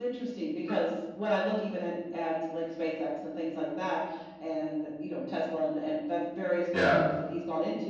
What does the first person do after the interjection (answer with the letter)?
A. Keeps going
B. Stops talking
A